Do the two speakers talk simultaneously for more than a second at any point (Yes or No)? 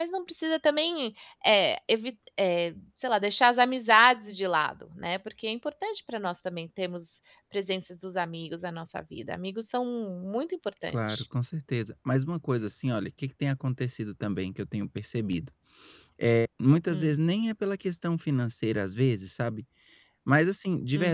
No